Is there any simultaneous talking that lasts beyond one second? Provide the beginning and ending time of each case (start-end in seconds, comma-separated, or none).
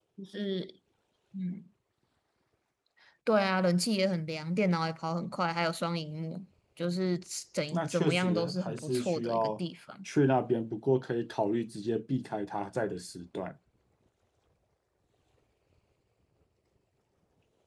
7.7-9.5